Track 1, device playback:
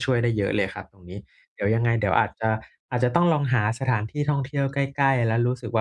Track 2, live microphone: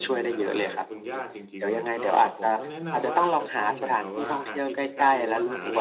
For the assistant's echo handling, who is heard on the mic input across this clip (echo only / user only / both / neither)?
both